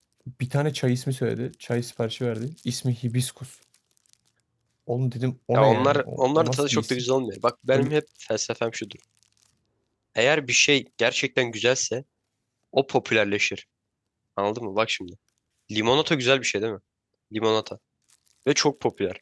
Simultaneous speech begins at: 6 s

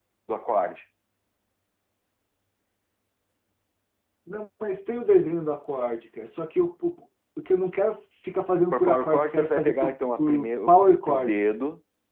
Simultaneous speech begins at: 9 s

